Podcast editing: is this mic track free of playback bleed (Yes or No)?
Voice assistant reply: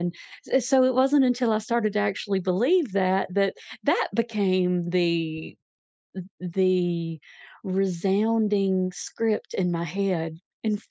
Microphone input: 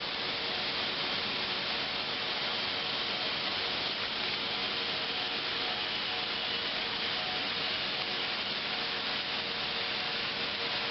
Yes